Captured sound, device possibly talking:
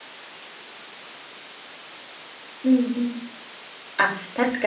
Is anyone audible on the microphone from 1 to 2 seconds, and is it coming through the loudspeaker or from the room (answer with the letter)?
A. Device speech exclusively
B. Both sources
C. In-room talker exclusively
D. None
D